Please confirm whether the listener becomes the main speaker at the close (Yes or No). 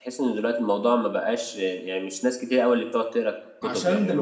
Yes